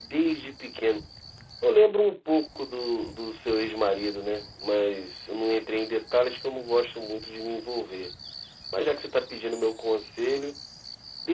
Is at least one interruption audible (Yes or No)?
No